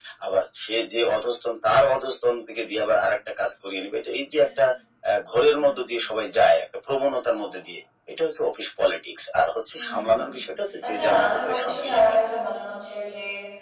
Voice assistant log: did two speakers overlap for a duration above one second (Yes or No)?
Yes